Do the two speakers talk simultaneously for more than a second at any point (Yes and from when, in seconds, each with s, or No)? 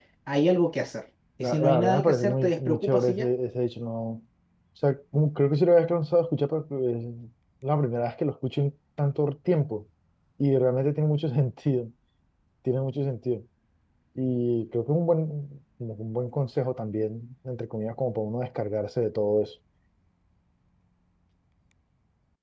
Yes, from 1.4 s